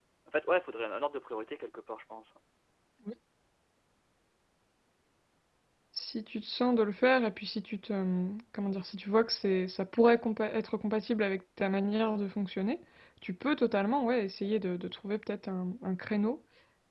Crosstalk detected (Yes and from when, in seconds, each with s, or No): No